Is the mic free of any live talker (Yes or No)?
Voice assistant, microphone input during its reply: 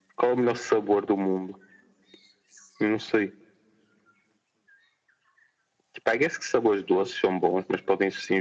Yes